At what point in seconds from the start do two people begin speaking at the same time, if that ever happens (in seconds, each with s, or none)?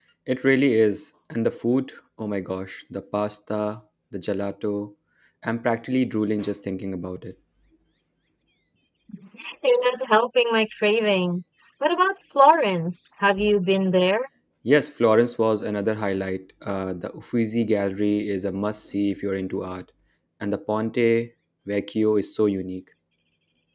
none